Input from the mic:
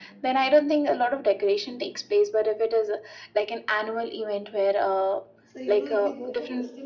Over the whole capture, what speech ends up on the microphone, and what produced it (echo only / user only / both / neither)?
both